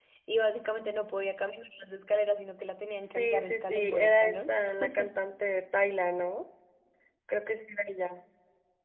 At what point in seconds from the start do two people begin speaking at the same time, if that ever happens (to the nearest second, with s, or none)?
3 s